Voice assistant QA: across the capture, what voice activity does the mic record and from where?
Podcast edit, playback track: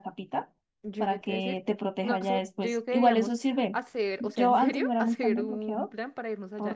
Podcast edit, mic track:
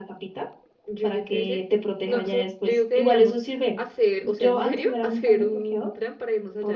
echo only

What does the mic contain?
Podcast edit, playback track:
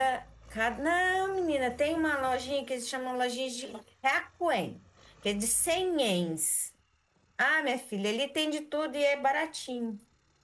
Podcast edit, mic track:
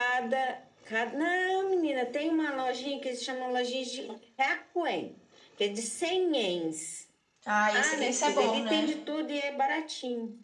both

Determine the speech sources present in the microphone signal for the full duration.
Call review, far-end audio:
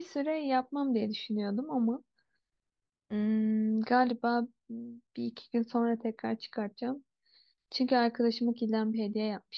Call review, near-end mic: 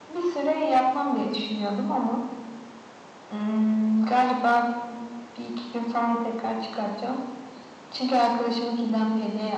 echo only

